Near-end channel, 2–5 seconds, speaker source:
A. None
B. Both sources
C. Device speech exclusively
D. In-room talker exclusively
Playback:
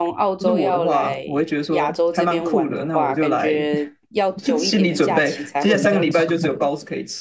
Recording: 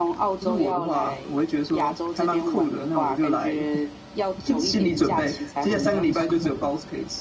C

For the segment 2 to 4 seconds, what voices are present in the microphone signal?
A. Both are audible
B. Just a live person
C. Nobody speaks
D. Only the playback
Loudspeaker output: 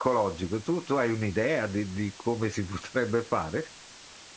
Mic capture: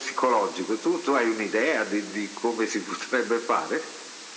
D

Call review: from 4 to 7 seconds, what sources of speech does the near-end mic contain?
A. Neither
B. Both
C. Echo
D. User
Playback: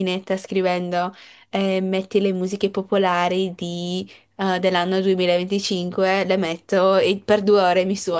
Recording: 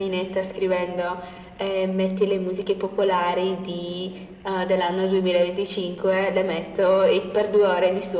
C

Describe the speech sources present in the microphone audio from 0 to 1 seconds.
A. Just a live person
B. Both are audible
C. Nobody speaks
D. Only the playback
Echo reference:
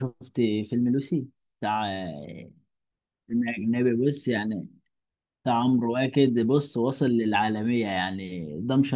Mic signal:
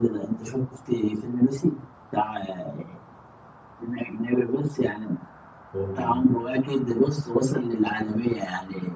D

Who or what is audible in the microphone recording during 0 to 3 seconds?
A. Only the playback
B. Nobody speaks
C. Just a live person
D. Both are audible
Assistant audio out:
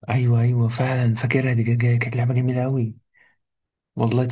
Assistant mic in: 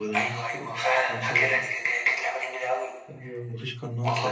D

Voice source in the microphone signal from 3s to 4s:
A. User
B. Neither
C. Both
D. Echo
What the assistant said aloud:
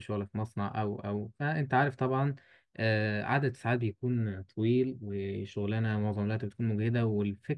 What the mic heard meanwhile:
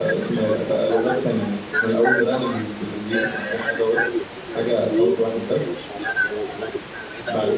C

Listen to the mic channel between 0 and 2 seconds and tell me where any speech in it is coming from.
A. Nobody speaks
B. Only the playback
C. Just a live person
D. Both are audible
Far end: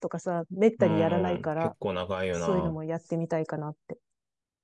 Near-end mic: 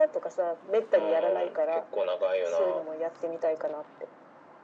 B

